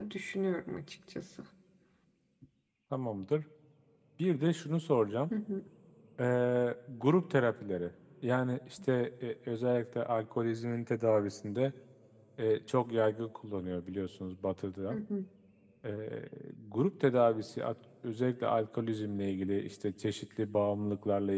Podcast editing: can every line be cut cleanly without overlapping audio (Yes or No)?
Yes